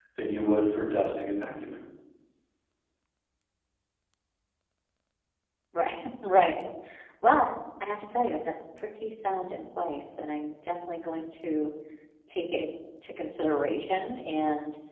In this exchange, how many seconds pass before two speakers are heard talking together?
none

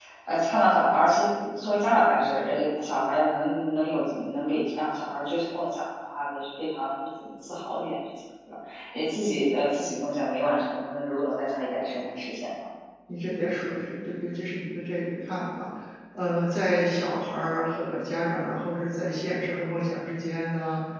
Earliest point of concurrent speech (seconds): none

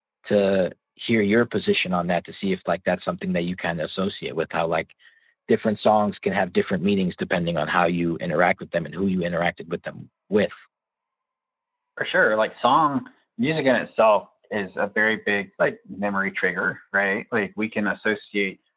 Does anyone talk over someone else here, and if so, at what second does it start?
none

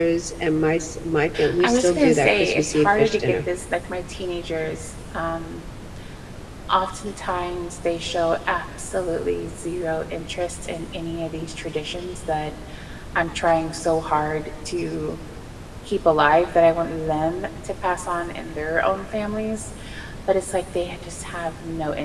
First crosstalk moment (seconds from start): 1.6 s

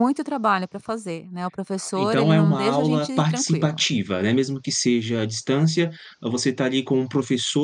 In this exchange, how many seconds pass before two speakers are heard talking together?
2.0 s

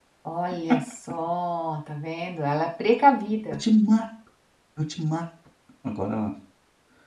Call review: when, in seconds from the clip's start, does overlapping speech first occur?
none

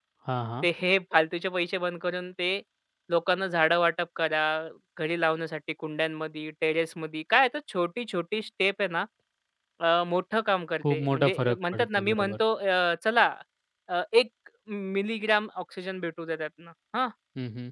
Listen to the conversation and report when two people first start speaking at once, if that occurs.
10.8 s

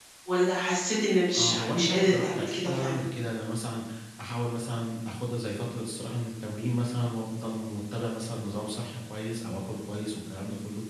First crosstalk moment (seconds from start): 1.3 s

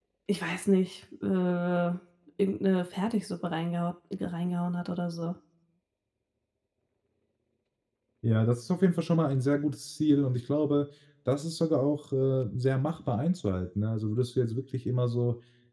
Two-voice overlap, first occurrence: none

